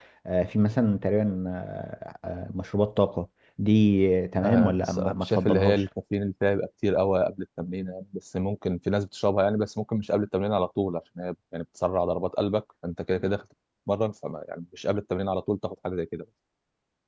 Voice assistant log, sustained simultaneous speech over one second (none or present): present